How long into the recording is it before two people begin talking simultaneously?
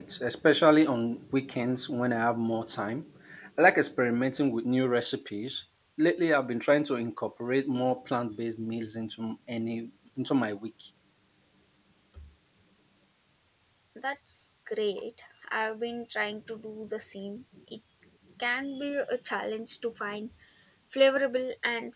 none

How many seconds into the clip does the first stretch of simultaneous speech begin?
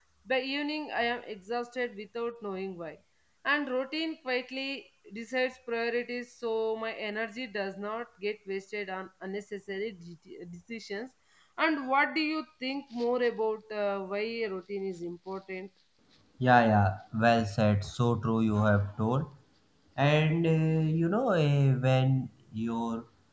none

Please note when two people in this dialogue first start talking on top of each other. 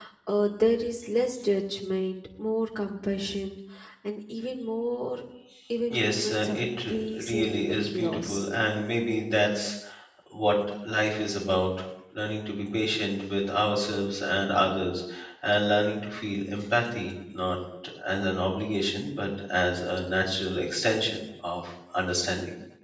5.9 s

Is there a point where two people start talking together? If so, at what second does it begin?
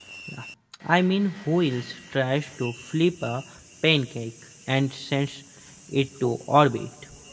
none

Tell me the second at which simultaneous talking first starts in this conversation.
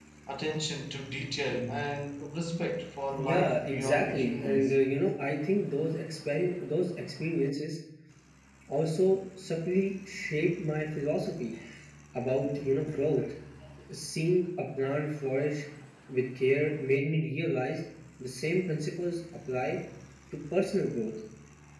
3.2 s

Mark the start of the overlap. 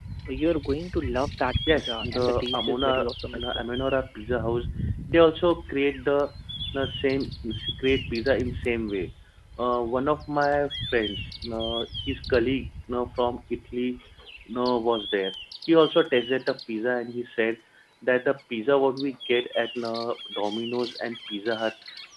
1.7 s

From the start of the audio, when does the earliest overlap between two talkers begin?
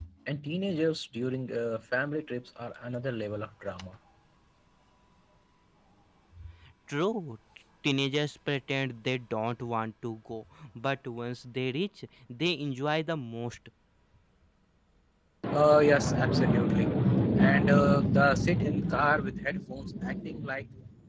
none

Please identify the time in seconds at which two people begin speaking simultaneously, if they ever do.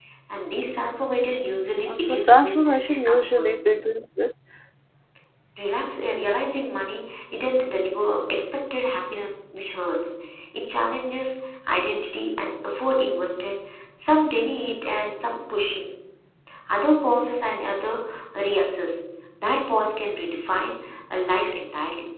1.9 s

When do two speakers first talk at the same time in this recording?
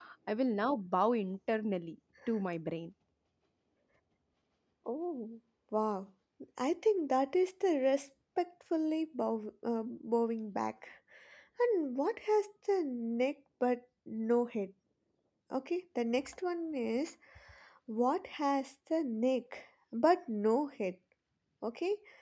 none

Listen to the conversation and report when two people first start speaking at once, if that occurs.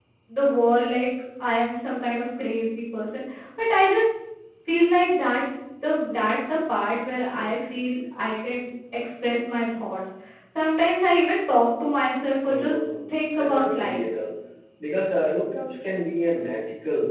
12.4 s

